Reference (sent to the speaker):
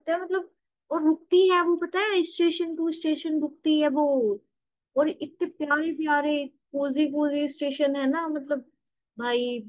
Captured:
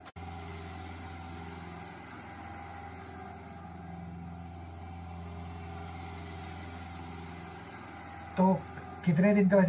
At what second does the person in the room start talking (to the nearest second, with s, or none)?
8 s